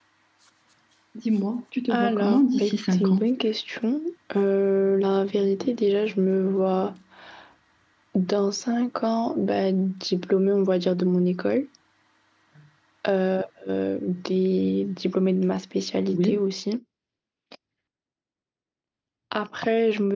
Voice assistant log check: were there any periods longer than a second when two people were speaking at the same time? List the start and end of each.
1.9-3.2

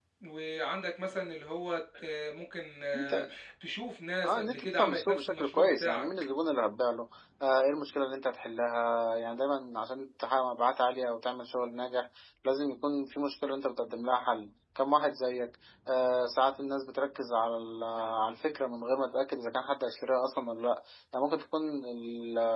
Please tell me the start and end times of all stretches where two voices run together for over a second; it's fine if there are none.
4.2-6.1

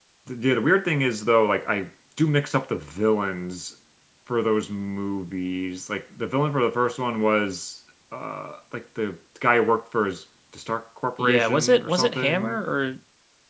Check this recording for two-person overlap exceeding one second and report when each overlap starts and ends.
11.2-12.6

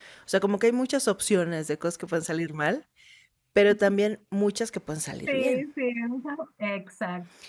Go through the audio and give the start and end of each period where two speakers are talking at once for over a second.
none

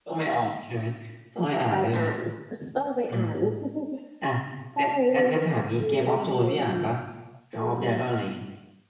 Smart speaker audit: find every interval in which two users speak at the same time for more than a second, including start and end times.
4.8-6.8

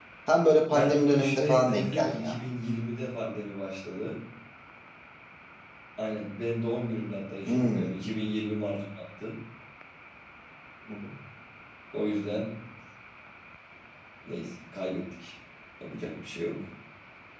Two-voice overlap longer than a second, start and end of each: 0.7-2.4

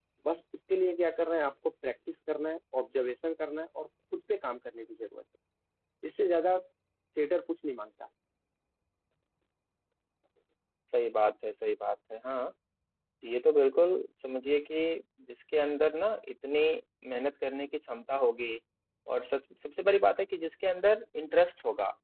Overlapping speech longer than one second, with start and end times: none

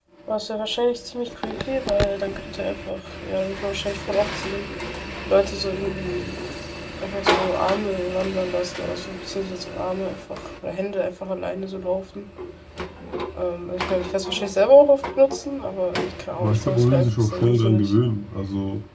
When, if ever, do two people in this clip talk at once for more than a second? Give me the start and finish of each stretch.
16.4-17.9

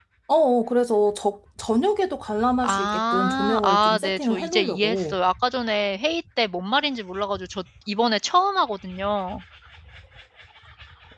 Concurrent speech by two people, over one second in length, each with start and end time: 2.6-5.2

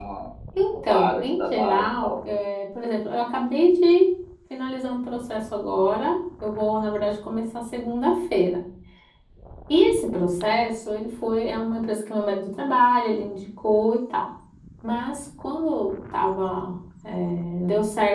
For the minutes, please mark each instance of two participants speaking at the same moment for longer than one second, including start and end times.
0.7-2.2

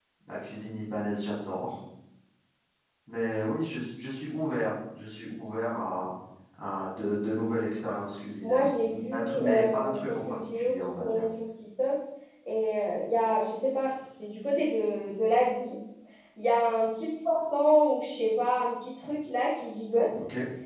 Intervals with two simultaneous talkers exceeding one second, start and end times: 9.1-11.2

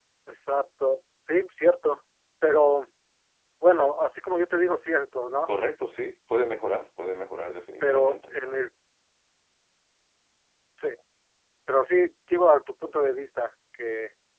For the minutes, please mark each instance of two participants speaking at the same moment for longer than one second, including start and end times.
none

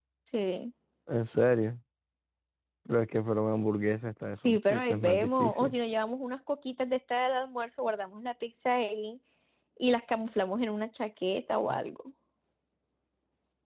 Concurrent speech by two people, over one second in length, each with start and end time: 4.4-5.8

